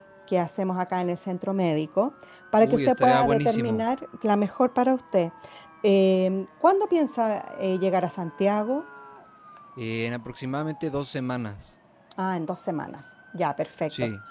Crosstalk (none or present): present